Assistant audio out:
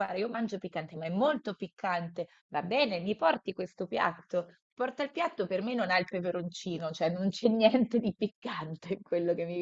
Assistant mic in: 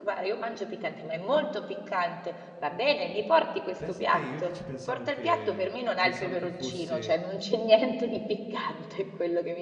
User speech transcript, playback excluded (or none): Pensa te, io invece pensavo che pensavo che fosse,